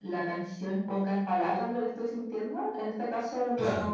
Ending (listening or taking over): listening